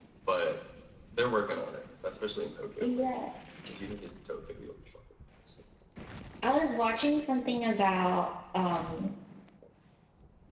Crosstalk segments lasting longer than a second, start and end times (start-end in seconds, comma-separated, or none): none